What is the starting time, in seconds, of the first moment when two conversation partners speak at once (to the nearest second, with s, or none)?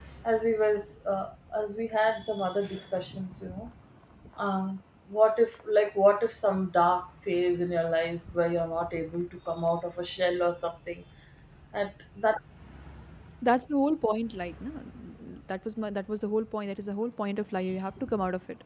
none